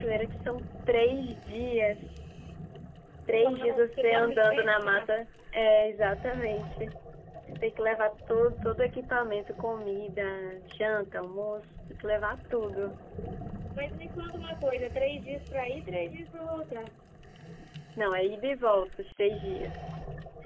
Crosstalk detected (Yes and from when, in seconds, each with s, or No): Yes, from 3.3 s